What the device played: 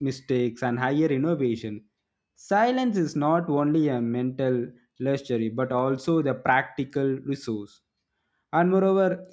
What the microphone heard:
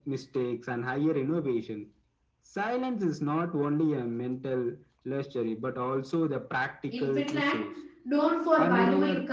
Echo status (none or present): present